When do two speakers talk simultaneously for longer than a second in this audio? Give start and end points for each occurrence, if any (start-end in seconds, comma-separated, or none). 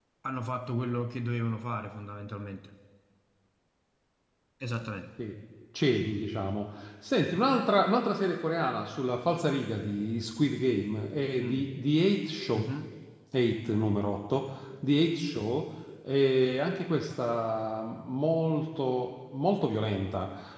none